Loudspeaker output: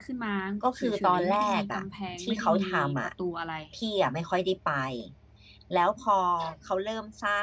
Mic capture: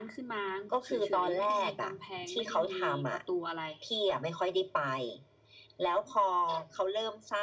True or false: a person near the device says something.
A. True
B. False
B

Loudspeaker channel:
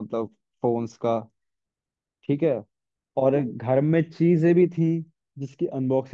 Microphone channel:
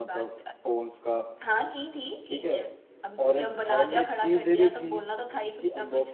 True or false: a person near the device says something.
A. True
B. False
A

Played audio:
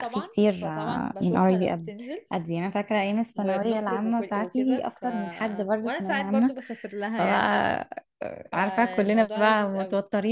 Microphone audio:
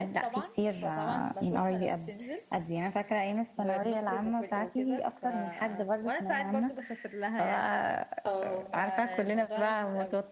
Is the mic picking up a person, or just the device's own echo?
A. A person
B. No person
A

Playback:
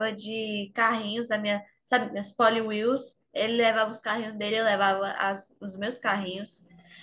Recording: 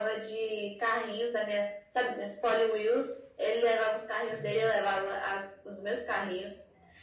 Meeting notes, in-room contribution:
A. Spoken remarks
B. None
A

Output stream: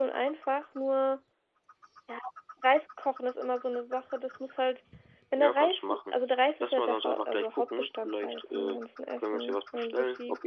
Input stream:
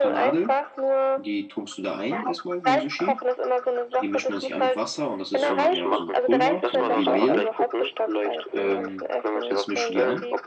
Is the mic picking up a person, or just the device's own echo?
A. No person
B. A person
B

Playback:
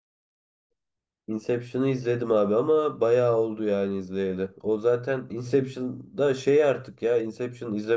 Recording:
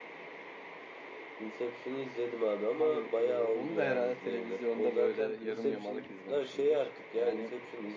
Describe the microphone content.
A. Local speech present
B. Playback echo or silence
A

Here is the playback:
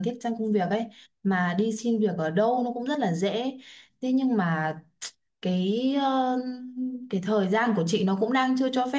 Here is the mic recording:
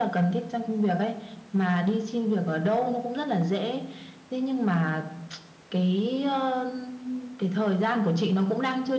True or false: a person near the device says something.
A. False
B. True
A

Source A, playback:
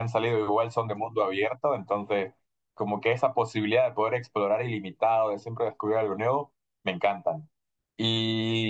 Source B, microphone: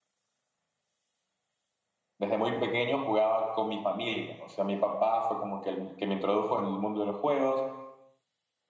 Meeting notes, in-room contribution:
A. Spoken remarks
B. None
A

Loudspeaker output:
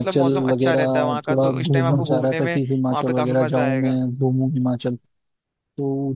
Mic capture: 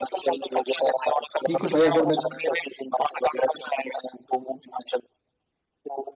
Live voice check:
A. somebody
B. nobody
A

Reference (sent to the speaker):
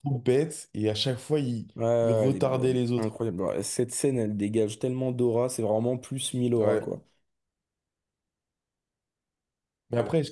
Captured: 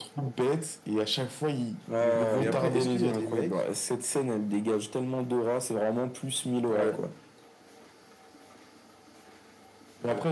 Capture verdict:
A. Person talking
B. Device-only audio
A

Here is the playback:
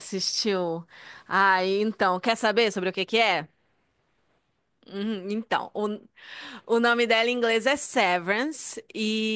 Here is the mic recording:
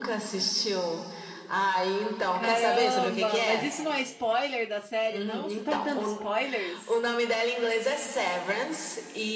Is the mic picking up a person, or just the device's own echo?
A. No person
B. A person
B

